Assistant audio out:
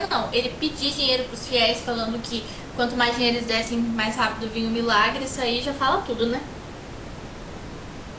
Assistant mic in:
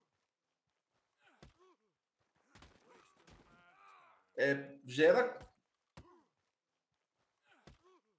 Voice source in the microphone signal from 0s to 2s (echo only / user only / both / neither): neither